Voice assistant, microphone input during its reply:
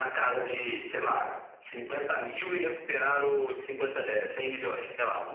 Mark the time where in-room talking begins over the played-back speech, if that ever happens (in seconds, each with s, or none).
none